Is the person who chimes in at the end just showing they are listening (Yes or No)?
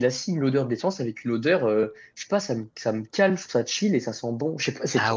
Yes